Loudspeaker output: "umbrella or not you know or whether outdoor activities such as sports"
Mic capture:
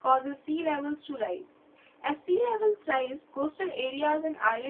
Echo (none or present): none